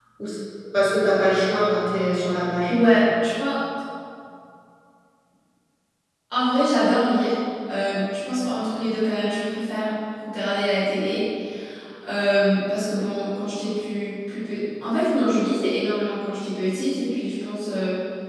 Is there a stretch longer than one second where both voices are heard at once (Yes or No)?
No